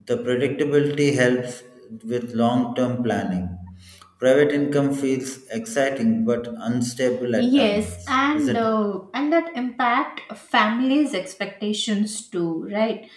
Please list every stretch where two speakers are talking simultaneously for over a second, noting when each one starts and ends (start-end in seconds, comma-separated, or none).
7.4-8.7